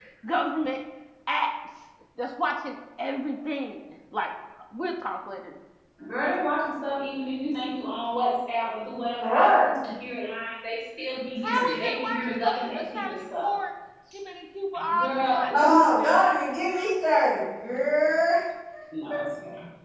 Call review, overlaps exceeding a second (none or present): present